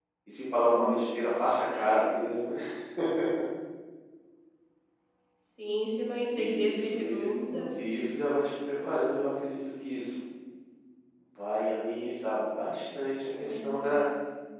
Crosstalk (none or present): present